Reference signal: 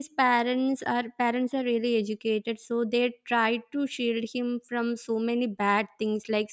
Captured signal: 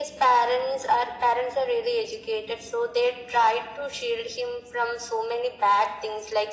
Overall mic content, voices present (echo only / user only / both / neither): echo only